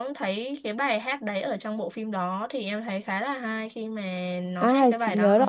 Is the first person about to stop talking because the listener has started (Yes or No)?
Yes